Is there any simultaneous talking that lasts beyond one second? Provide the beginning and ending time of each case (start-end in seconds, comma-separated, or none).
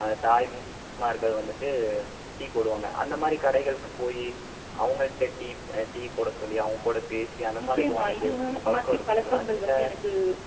7.6-9.7